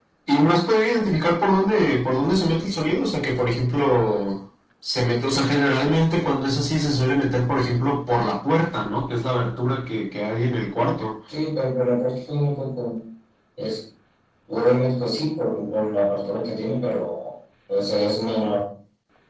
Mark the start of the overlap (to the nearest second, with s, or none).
none